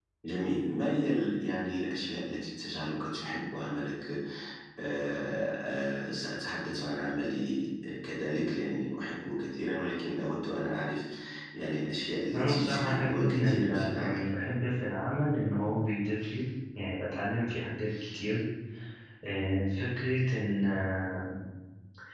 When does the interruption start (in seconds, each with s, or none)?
12.3 s